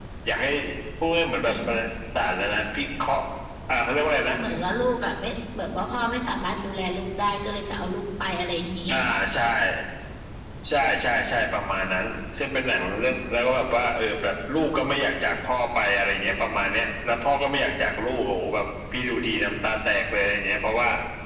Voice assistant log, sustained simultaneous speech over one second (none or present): none